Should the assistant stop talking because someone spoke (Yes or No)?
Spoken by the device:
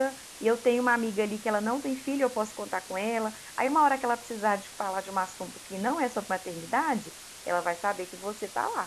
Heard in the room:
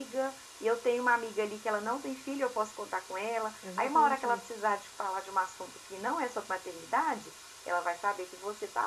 Yes